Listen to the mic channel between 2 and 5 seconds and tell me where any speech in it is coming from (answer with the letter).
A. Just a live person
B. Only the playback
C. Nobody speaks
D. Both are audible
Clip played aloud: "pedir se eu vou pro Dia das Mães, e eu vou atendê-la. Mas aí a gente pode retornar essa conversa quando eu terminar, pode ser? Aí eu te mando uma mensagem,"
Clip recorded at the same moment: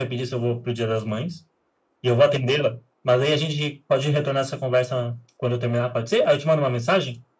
B